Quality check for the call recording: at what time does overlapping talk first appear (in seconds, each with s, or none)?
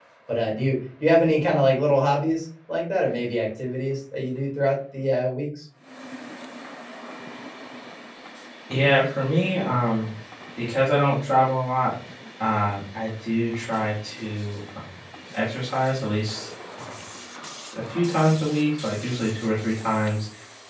none